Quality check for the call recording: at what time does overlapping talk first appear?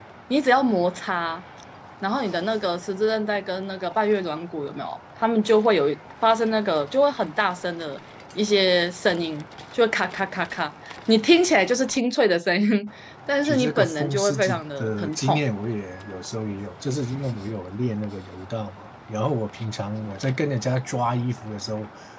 13.4 s

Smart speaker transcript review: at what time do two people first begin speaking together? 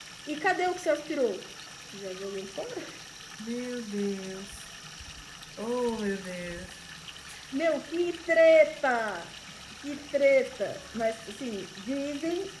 none

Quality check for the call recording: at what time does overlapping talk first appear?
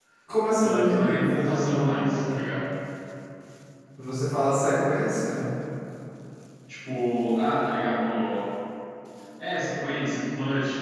0.6 s

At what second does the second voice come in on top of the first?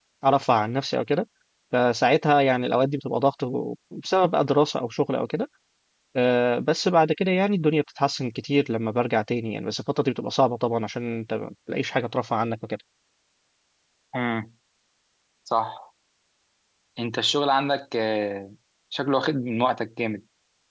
none

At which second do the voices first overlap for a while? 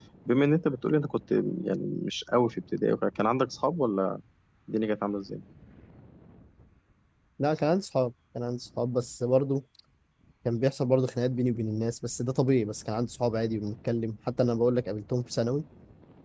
none

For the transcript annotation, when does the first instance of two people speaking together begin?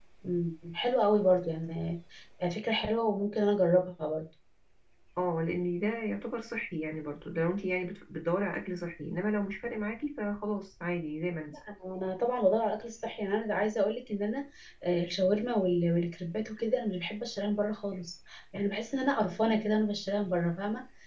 none

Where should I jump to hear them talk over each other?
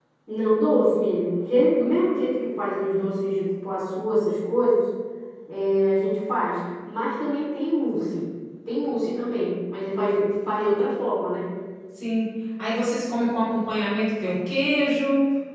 none

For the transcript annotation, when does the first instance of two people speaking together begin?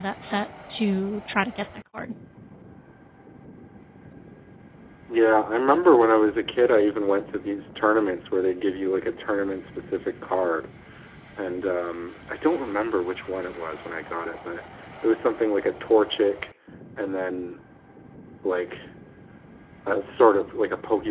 none

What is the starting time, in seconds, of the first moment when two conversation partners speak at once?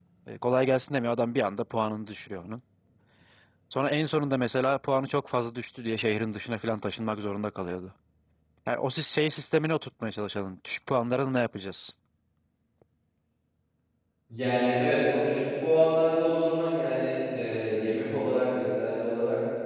none

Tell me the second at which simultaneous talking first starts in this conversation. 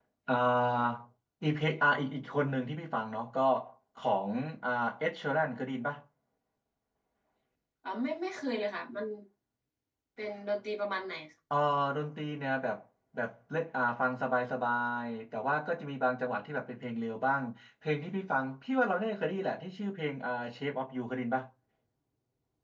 none

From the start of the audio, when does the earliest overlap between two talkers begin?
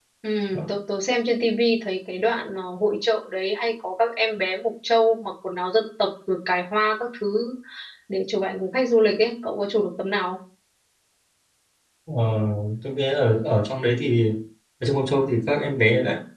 none

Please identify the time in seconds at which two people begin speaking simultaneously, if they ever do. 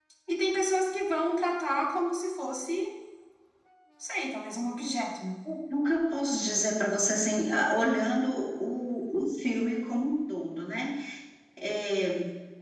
none

